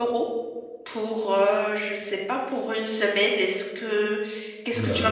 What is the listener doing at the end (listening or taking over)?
taking over